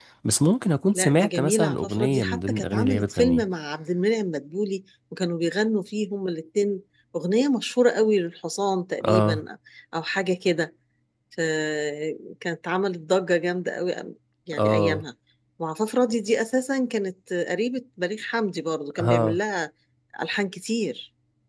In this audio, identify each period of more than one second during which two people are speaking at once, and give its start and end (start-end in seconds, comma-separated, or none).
0.9-3.4